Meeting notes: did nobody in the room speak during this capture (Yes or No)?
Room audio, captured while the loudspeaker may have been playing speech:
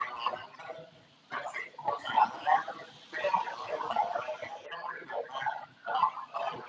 Yes